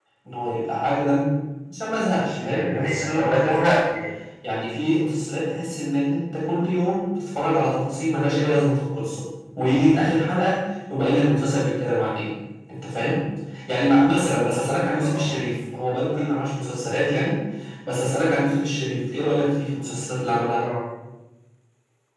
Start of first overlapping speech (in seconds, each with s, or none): 2.4 s